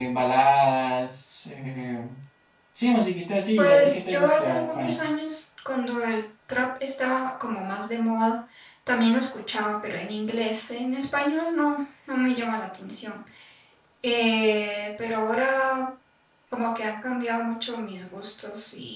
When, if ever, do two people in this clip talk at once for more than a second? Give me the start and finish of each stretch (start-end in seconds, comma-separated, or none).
3.6-5.0